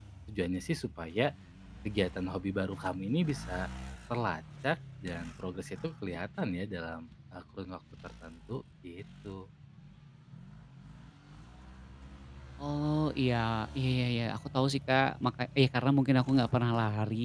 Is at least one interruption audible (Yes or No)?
No